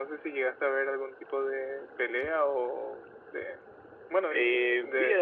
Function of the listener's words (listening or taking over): taking over